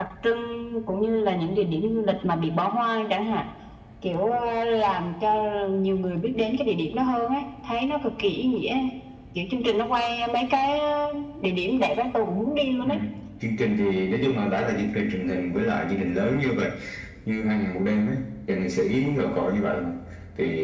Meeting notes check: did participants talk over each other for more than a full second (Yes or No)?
No